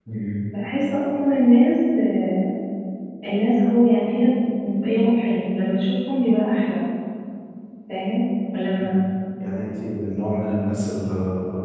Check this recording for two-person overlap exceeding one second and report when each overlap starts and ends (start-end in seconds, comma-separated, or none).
none